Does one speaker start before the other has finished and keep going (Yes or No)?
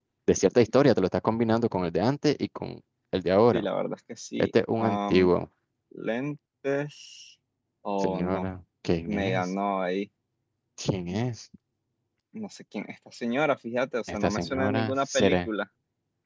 Yes